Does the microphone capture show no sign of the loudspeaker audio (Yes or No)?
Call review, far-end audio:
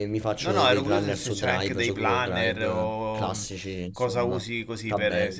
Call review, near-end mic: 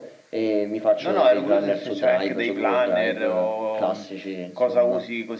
No